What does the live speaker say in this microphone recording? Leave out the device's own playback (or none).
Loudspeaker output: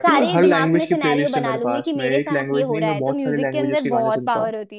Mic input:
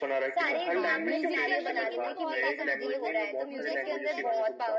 हाँ म्यूजिक के अंदर लेकिन ना बहुत ताकत होती है मतलब मुझे ऐसा लगता है कि